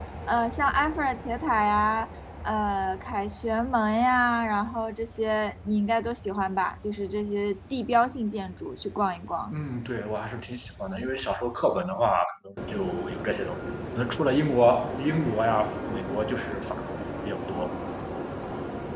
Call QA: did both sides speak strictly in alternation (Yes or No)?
Yes